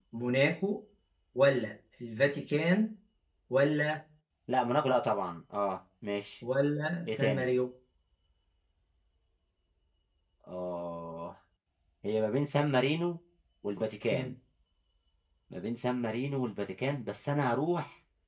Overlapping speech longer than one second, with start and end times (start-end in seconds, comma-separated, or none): none